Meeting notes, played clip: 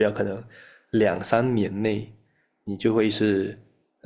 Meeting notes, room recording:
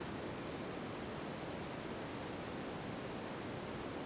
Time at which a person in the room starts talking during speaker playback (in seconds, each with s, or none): none